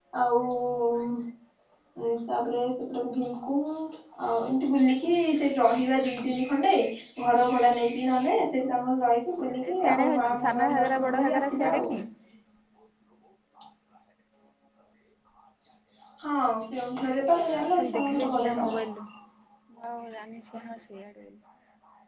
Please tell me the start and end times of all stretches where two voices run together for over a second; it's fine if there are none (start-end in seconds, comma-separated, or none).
9.7-11.8, 17.5-18.7